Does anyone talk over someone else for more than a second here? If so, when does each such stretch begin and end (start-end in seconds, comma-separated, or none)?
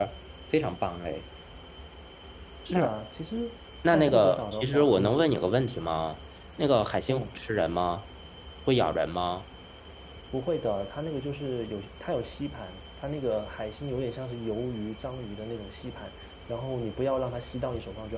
3.9-5.2